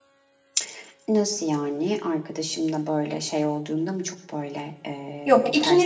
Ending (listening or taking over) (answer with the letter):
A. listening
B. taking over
B